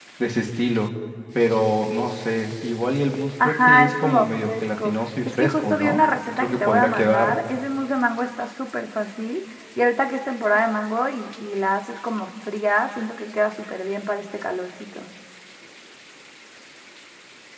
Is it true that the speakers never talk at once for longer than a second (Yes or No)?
No